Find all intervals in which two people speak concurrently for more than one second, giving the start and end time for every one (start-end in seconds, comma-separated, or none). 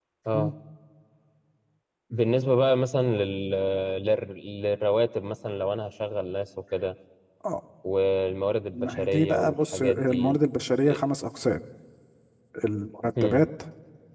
8.7-10.4